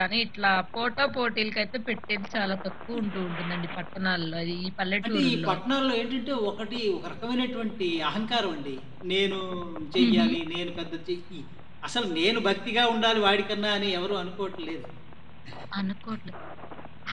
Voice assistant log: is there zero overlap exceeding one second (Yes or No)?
Yes